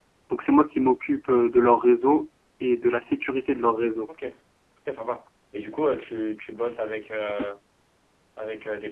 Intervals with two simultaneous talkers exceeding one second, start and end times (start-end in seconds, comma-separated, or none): none